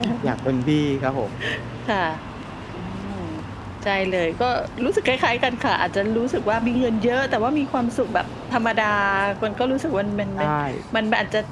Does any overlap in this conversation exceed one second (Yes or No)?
No